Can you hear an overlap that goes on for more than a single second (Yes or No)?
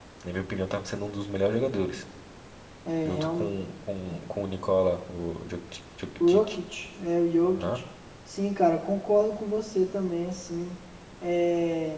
No